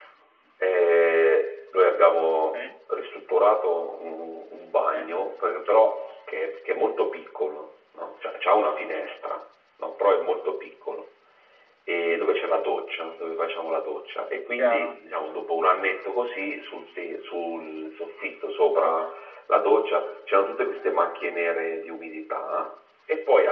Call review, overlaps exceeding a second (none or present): none